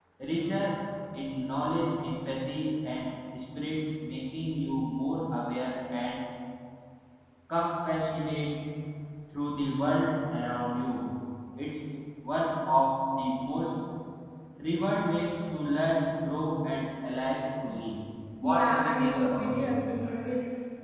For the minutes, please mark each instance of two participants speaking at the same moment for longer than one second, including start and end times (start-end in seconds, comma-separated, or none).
18.4-19.7